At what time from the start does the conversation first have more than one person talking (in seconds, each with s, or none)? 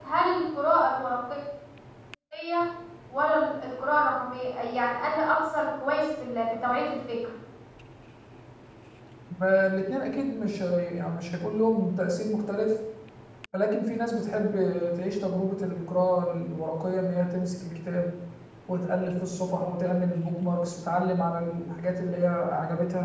none